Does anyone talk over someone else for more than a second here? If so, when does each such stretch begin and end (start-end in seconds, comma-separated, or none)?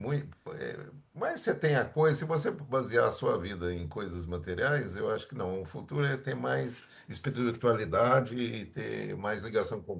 none